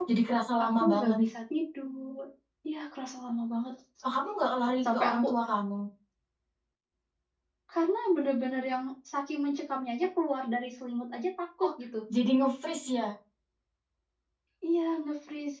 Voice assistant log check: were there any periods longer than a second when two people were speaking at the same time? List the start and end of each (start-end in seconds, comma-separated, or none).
none